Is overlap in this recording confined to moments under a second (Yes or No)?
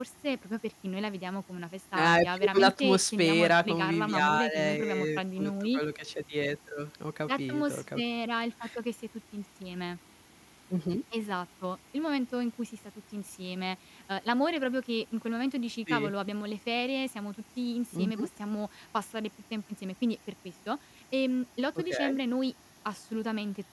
No